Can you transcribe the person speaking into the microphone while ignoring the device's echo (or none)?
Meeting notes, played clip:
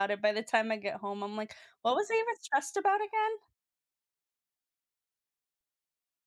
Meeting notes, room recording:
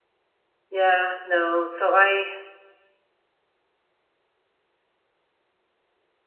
Yeah, no, so I